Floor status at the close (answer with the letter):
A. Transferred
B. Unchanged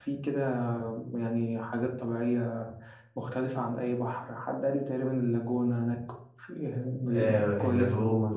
A